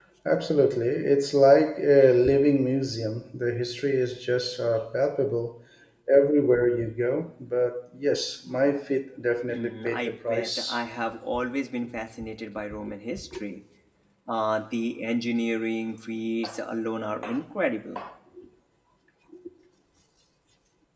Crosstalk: present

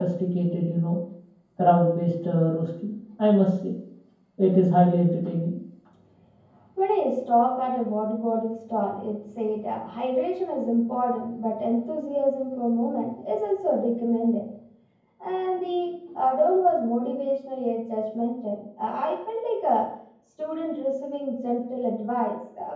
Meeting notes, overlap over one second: none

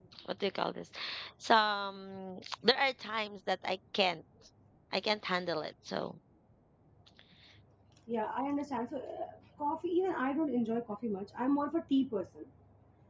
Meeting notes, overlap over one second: none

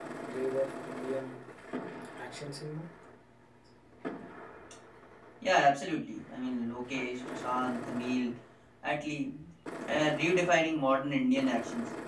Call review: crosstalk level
none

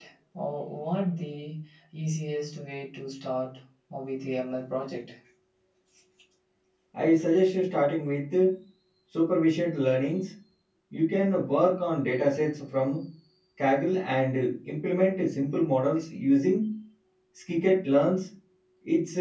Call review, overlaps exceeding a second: none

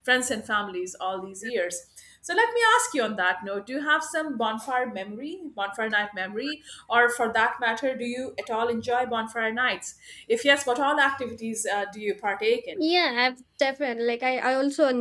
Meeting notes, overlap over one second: none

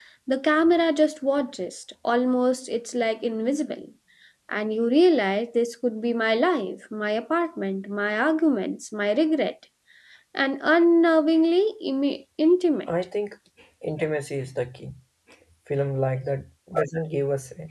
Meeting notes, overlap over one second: none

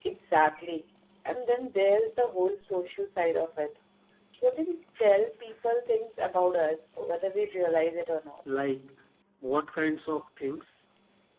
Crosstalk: none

